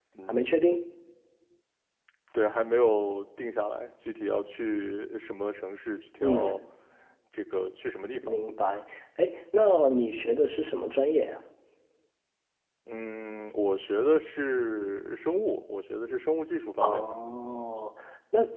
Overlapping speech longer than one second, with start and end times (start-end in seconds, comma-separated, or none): none